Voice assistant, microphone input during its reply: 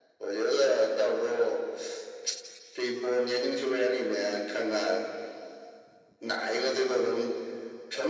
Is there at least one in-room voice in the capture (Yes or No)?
No